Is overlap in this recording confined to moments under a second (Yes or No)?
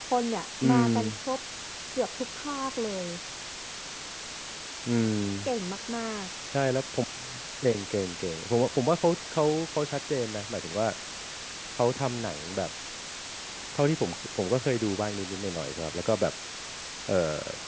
Yes